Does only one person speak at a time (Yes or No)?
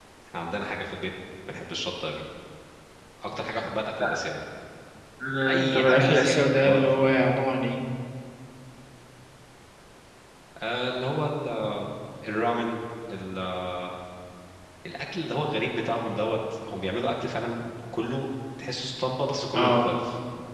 No